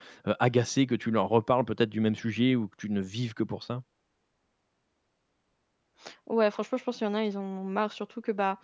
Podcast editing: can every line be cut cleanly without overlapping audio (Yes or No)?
Yes